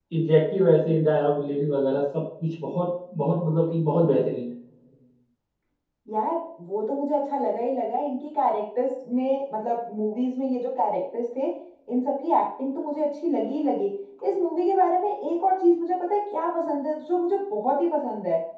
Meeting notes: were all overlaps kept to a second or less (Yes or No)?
Yes